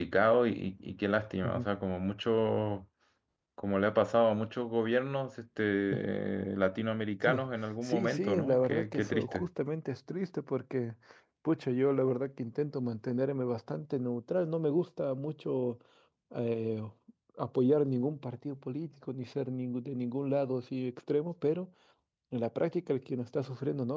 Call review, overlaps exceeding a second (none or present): present